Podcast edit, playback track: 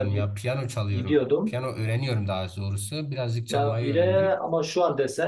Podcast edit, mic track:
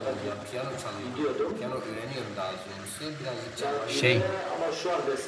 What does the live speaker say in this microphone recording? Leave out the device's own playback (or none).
şey